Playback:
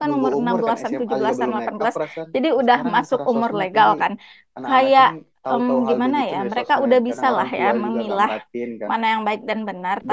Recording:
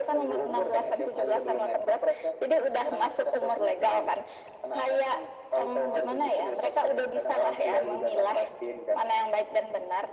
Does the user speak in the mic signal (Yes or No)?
No